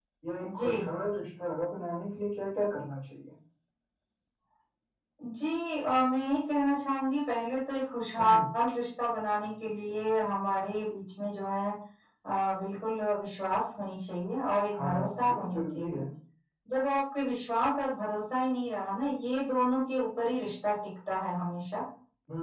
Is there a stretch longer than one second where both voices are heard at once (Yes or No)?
Yes